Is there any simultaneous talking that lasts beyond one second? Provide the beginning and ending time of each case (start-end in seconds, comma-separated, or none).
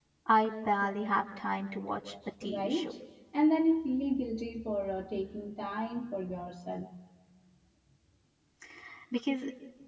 none